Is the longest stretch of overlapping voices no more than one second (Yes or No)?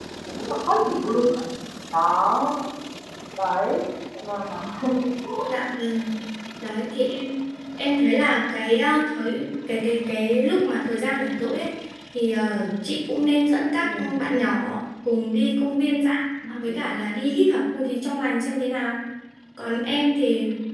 Yes